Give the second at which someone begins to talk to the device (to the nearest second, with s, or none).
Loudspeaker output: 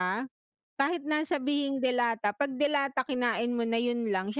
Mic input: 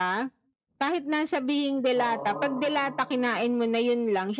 2 s